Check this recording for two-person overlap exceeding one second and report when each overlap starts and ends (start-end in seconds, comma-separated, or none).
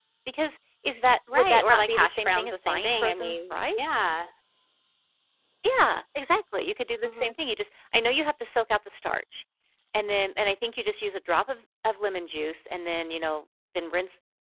1.3-3.9